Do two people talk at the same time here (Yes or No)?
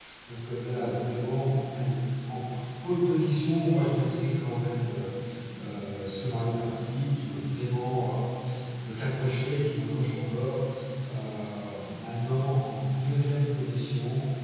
No